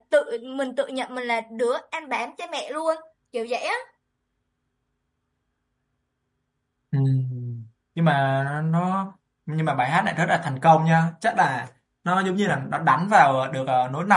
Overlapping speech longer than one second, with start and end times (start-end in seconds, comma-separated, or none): none